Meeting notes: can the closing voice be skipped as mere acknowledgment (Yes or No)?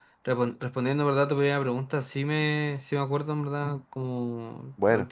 Yes